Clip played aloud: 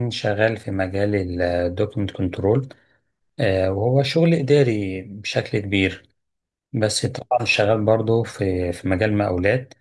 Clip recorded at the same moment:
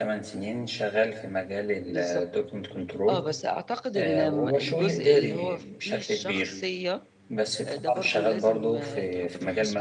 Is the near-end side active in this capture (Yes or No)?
Yes